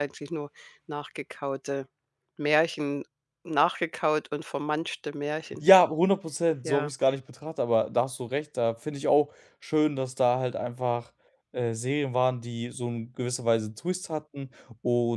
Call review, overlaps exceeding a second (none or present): none